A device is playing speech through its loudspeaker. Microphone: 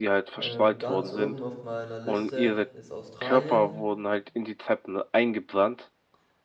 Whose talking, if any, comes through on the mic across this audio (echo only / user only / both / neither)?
both